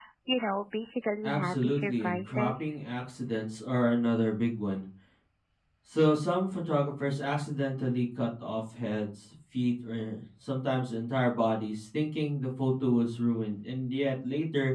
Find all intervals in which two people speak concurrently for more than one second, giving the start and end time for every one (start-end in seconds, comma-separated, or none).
1.2-2.7